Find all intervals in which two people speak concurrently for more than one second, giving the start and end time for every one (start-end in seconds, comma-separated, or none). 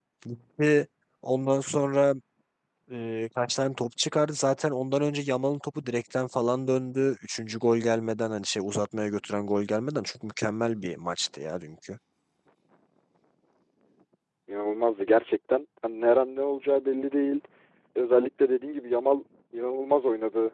none